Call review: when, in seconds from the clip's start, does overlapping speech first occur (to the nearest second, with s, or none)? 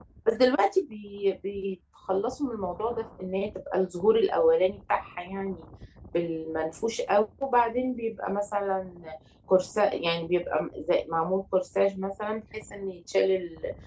none